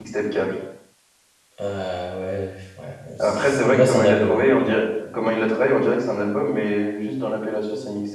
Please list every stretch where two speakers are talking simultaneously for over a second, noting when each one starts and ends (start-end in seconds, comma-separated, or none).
3.2-4.5